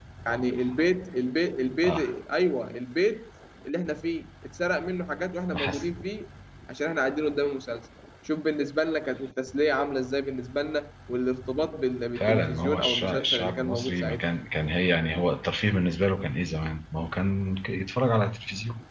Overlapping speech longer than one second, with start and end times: 12.2-14.2

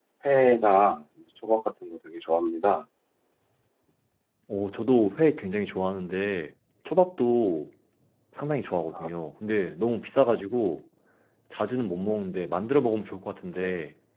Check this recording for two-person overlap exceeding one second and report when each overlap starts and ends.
none

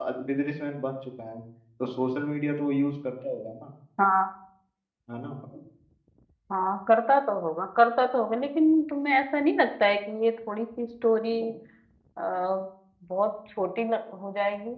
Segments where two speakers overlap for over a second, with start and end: none

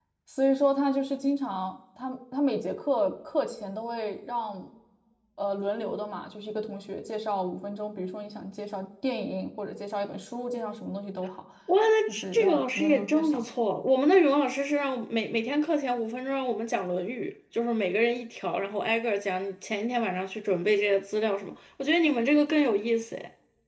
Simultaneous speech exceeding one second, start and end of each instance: 12.1-13.4

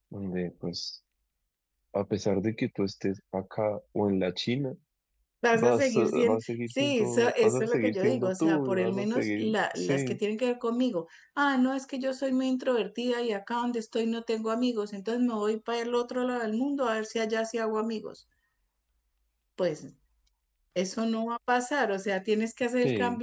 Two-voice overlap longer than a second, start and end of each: 5.5-10.2

